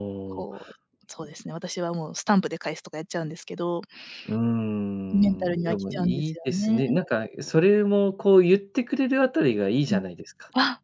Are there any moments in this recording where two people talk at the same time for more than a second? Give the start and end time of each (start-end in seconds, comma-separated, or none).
5.1-6.8